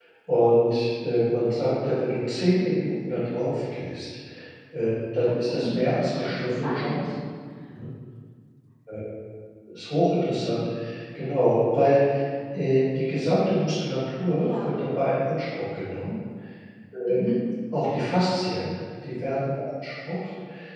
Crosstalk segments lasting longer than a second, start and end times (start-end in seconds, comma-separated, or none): 5.5-7.1